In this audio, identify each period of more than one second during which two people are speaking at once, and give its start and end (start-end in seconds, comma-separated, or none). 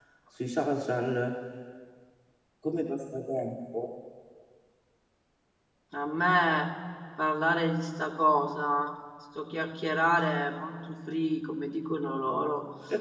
none